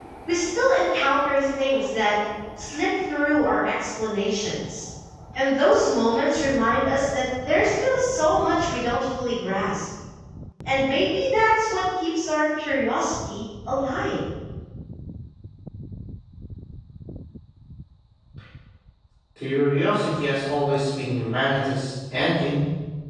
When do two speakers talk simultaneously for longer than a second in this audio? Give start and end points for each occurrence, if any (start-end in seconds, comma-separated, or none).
none